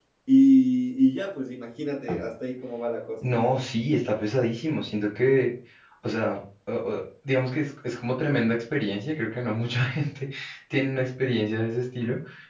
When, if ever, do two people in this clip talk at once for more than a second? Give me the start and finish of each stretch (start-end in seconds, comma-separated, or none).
none